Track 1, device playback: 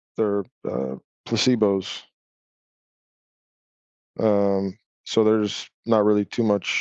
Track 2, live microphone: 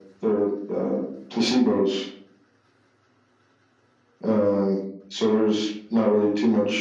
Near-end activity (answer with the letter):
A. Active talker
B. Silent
B